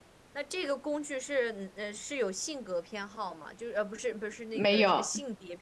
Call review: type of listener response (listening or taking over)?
listening